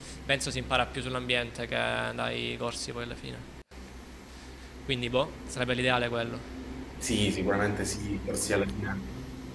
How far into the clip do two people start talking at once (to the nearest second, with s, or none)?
none